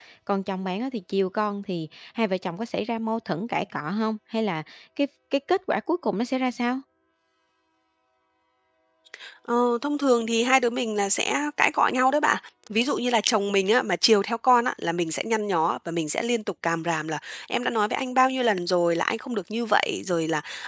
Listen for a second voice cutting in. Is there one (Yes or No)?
No